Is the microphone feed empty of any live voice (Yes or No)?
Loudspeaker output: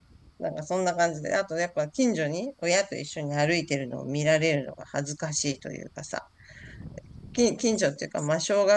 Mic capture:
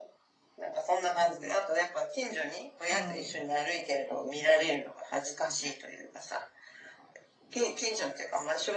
No